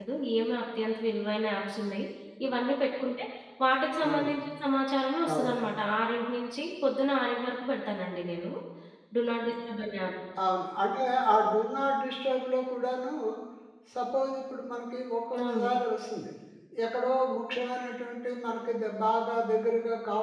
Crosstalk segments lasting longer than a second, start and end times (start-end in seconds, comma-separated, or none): none